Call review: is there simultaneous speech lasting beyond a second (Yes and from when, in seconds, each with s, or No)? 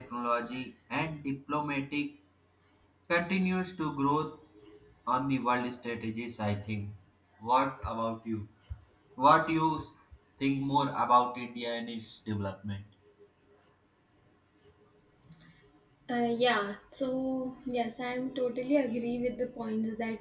No